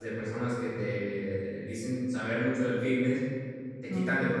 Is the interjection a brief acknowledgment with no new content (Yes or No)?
Yes